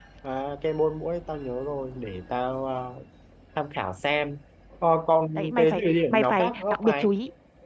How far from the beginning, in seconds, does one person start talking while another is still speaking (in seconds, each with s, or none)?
5.3 s